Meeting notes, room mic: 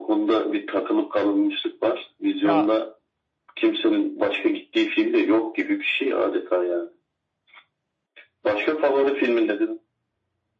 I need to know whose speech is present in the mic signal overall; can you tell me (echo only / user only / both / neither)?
both